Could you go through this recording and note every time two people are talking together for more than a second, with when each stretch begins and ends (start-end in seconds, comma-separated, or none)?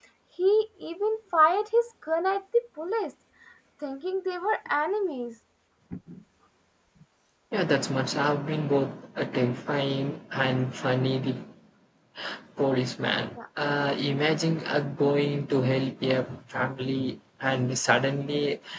none